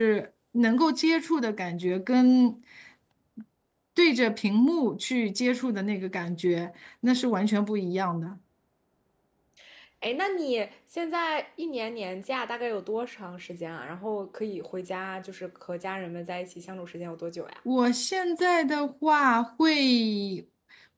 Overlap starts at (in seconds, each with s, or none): none